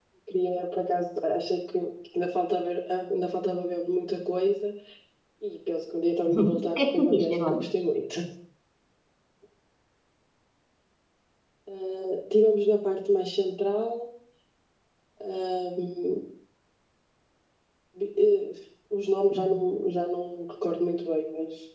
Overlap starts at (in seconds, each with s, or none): 6.4 s